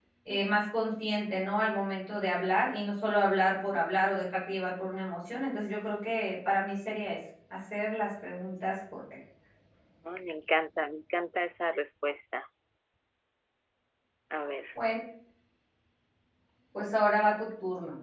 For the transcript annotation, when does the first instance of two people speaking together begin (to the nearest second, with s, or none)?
none